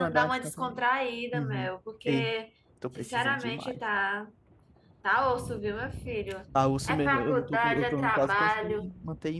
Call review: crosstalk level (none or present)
present